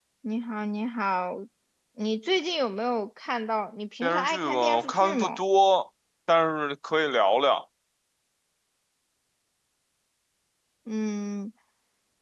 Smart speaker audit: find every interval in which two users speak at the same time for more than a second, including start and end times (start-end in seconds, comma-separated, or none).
4.0-5.4